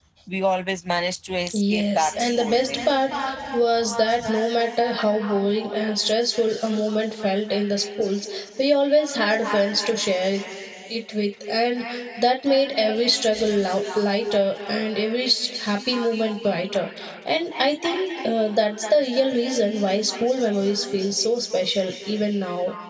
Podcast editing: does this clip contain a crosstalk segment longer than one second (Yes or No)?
Yes